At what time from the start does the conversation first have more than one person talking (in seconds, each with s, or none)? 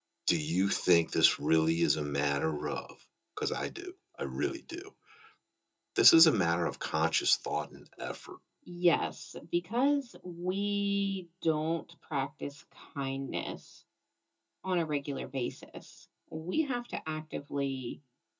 none